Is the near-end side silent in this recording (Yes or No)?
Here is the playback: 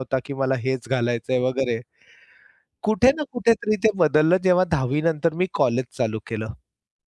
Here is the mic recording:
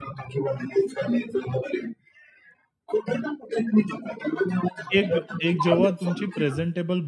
No